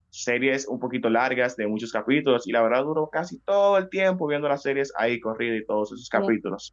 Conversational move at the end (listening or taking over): taking over